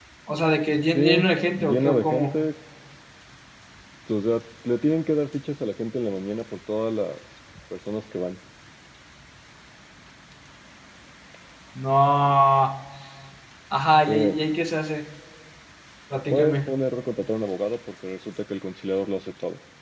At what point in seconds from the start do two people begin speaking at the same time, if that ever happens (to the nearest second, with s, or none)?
1 s